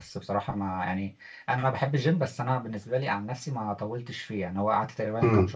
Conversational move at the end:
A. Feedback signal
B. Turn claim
A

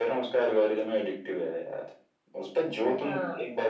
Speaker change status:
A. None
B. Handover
A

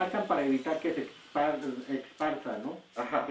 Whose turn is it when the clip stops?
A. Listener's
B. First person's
A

